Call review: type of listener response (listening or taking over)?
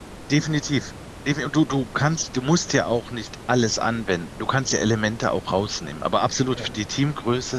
listening